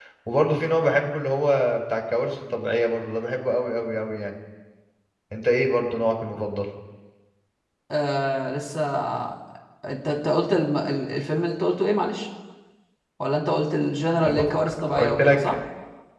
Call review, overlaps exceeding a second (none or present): present